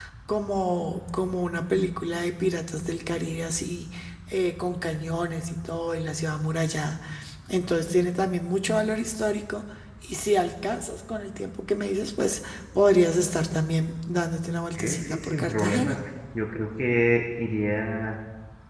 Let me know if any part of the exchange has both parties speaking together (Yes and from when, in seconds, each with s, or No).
Yes, from 14.8 s